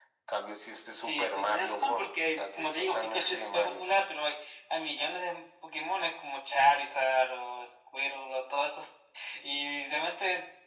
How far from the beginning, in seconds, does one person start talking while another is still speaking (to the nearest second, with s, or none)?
1 s